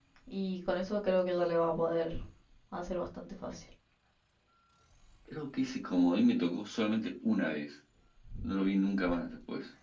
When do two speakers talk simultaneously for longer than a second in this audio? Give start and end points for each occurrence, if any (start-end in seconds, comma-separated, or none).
none